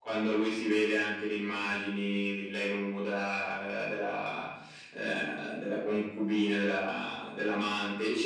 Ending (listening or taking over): listening